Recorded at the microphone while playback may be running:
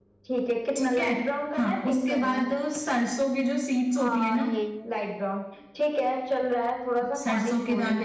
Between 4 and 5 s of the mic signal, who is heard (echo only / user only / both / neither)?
both